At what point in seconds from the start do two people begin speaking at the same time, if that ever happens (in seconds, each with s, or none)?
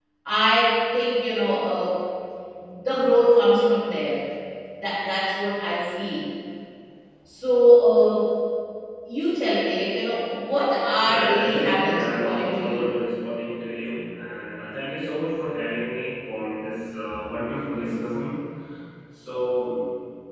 11.1 s